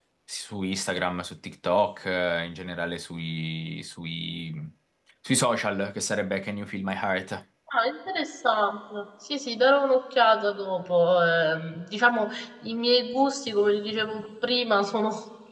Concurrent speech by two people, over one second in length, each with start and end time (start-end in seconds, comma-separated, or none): none